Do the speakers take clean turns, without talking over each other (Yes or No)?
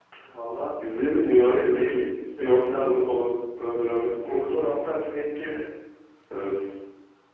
No